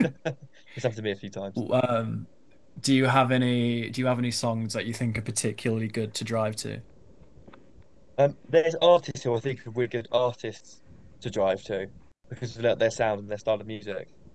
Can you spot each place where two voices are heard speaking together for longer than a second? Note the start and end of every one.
none

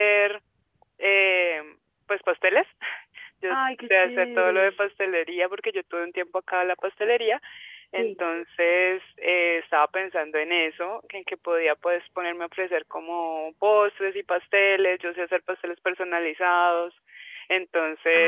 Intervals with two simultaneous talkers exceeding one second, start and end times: 3.5-4.8

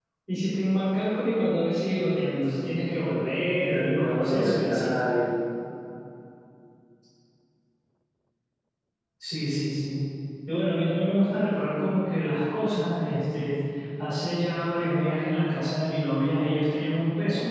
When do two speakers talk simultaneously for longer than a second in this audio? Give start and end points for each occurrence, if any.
3.5-4.9

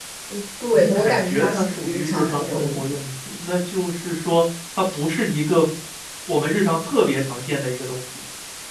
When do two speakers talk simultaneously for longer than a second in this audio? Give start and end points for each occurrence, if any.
0.7-3.0

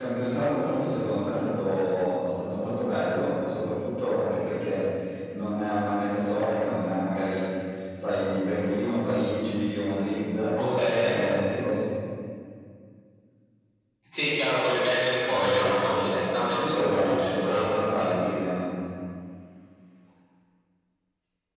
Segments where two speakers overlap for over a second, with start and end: 15.3-18.3

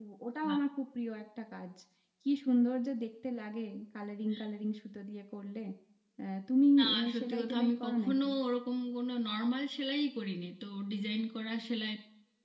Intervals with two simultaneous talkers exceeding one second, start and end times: 6.8-8.3

